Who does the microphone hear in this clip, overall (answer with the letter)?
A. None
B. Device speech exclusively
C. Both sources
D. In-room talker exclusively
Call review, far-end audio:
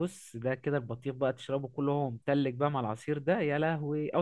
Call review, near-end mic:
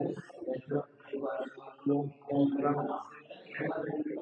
B